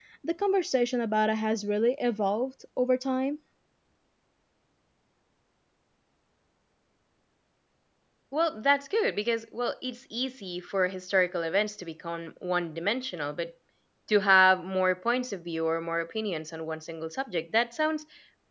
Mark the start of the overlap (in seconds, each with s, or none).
none